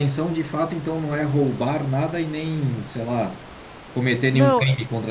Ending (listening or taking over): taking over